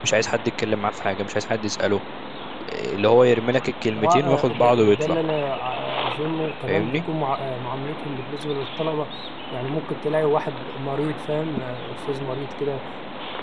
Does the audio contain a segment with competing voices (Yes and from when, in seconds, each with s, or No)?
Yes, from 4.0 s